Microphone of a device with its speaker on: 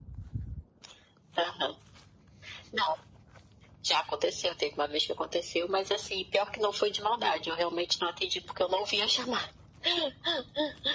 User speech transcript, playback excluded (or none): none